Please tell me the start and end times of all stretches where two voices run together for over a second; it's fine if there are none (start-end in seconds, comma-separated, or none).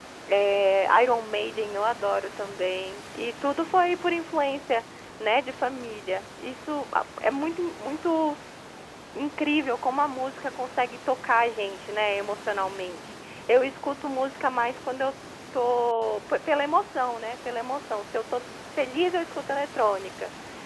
none